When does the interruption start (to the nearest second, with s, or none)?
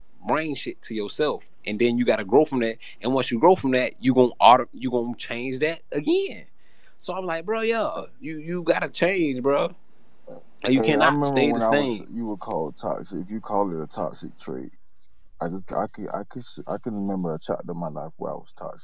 11 s